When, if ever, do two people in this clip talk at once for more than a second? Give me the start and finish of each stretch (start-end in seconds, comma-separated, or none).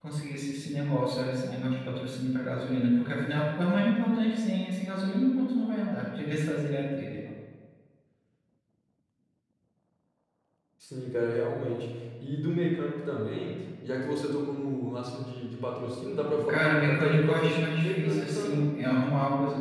16.5-18.6